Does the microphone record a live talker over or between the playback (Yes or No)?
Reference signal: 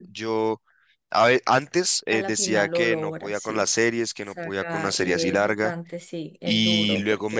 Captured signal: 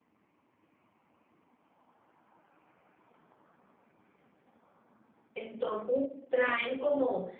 Yes